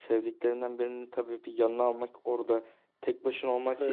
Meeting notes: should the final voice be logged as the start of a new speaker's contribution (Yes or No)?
No